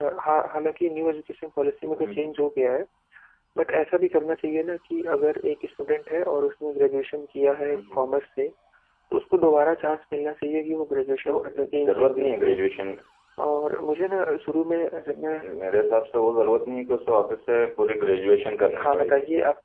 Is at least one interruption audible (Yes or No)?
Yes